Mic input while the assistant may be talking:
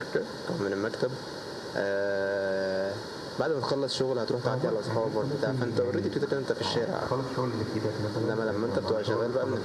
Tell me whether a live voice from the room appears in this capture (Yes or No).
Yes